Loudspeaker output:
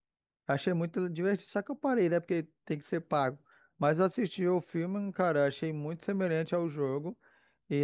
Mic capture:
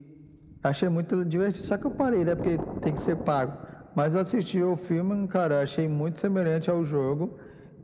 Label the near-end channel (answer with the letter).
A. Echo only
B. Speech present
A